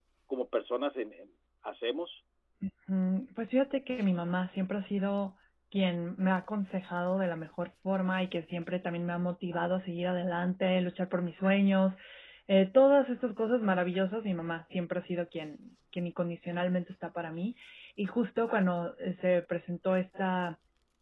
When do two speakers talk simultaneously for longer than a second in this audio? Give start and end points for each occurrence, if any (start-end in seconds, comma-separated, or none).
none